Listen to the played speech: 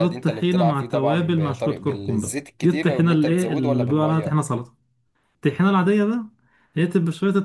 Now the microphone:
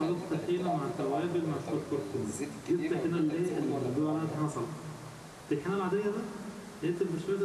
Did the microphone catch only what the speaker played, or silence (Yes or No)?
Yes